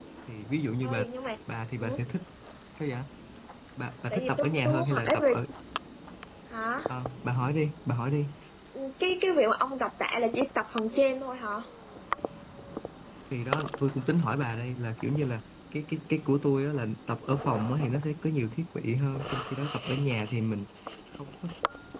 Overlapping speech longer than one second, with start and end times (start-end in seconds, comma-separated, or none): 4.1-5.3